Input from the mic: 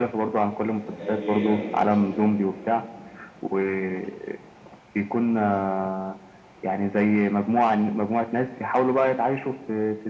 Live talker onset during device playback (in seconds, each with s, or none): 0.6 s